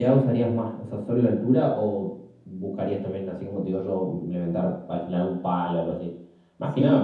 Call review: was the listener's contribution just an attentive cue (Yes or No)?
No